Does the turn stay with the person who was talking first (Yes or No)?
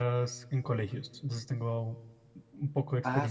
No